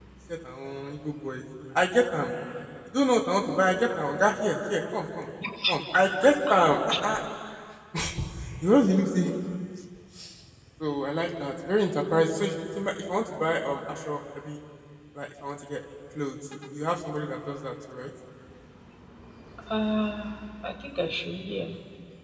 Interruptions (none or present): none